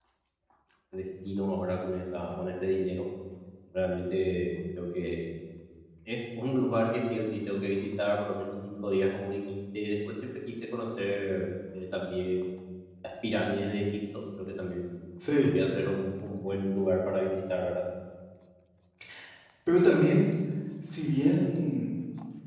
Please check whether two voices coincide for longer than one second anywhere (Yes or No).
No